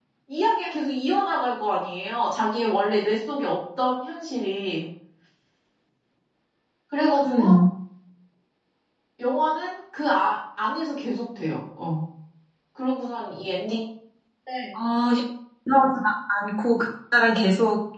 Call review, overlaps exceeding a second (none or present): none